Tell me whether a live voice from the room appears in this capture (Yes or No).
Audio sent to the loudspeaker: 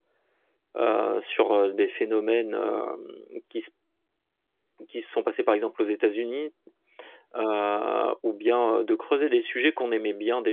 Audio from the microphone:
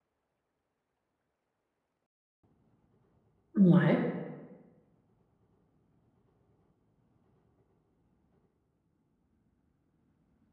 Yes